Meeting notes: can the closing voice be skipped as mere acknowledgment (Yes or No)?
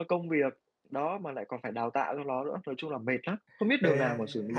No